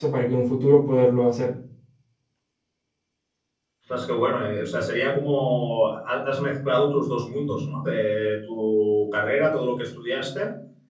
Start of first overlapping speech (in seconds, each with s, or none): none